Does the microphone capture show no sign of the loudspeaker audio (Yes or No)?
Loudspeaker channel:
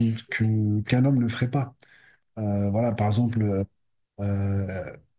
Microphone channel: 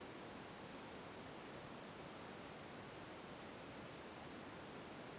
Yes